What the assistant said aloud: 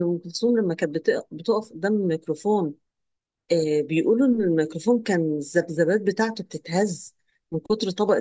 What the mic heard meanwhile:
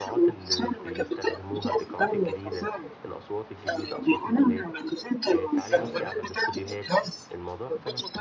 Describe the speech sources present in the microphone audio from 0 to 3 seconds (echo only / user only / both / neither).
both